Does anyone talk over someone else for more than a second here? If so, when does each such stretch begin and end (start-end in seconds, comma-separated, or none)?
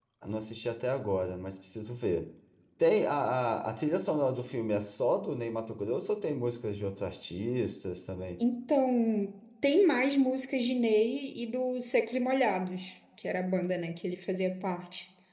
none